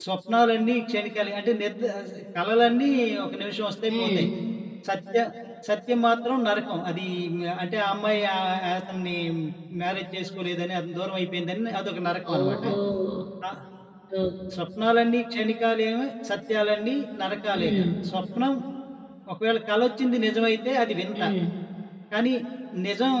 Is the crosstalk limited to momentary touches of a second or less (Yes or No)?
Yes